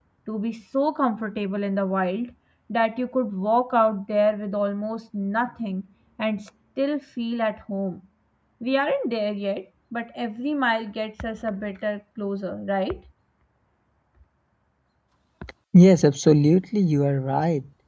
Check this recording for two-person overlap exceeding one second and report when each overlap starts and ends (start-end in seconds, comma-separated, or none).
none